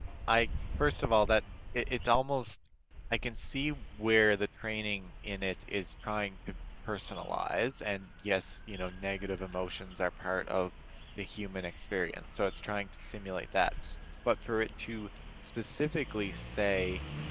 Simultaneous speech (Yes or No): No